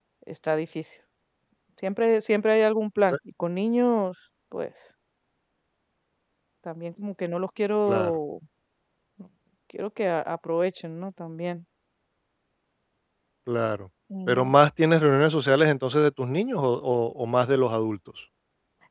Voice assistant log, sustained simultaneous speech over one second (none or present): none